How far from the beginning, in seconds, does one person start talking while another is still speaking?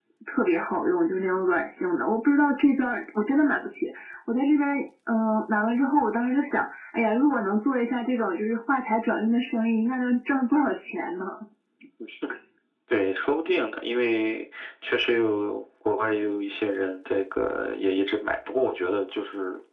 none

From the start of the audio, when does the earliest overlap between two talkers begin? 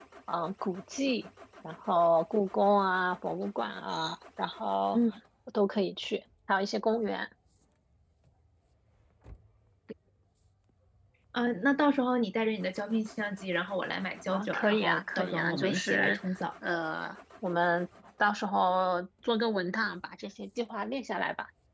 14.3 s

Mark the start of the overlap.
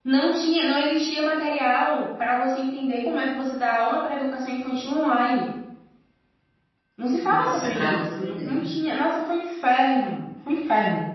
7.2 s

